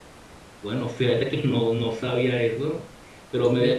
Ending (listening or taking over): listening